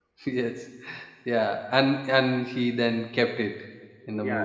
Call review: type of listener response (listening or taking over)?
taking over